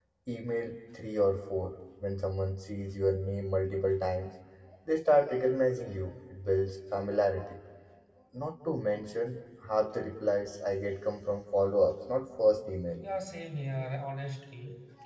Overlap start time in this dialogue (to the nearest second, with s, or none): none